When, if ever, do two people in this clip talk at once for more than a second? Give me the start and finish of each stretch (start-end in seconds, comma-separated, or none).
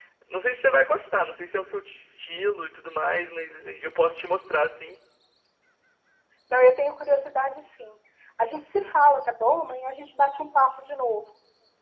none